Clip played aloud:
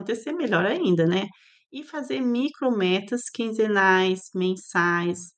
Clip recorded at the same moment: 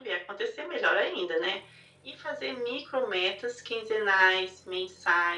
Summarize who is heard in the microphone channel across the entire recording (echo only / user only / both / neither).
echo only